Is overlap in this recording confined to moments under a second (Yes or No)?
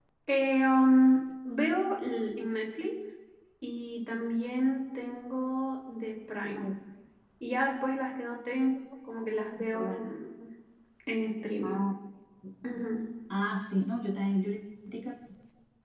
Yes